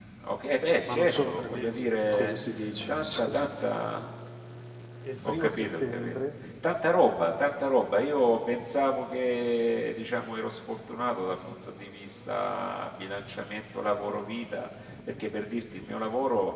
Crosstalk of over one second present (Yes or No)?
Yes